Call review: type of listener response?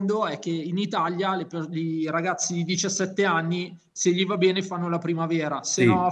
listening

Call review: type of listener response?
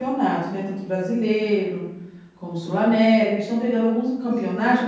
listening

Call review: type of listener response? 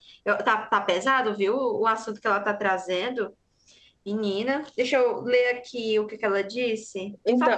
taking over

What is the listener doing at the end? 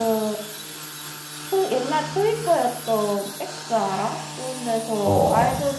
listening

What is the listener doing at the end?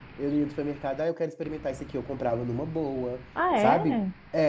listening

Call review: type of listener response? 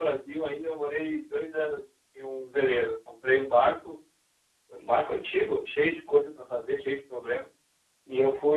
listening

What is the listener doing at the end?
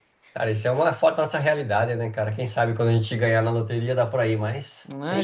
taking over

